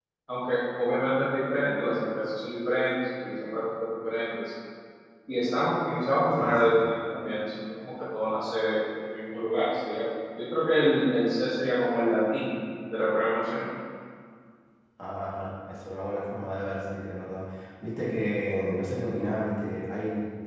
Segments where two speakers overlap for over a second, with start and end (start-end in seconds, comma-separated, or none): none